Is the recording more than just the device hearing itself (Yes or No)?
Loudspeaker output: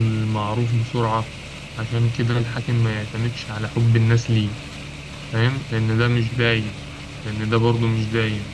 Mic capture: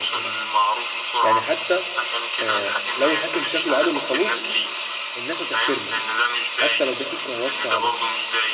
Yes